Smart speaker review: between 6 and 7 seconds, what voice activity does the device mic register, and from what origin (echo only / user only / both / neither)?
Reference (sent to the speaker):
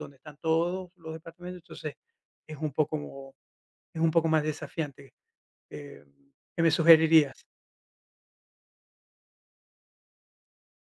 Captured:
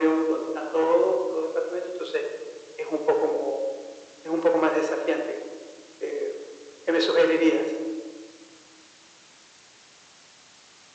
echo only